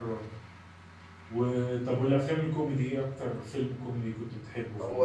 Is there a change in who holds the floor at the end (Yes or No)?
Yes